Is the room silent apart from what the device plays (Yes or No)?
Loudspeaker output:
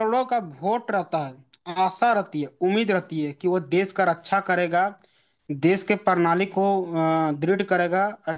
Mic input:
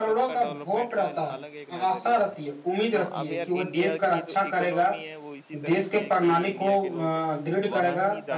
No